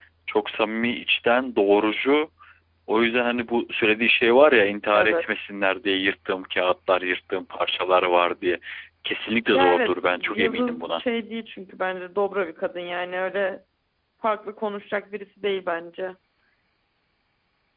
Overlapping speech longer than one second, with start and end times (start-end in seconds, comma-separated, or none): 9.5-11.0